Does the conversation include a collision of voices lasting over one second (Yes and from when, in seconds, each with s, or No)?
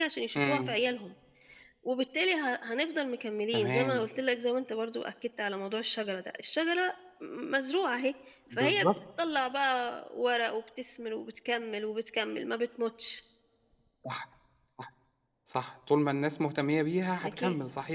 No